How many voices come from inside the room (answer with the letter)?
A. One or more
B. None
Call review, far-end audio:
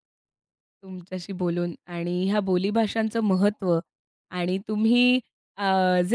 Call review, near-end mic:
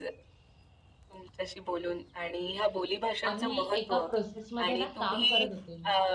A